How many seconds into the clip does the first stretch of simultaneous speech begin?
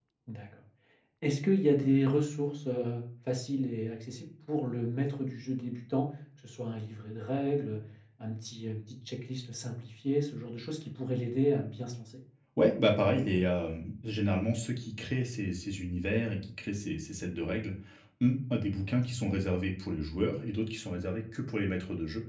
none

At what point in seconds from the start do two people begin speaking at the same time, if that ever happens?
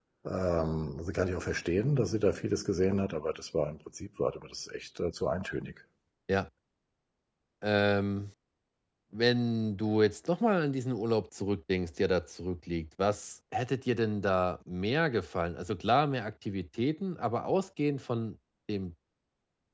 none

